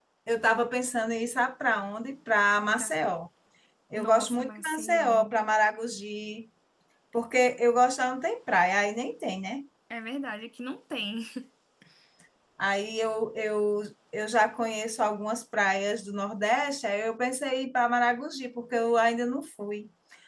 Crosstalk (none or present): present